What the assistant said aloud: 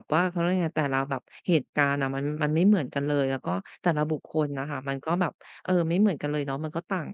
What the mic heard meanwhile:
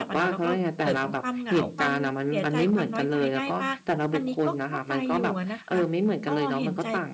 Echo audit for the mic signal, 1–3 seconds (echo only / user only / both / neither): both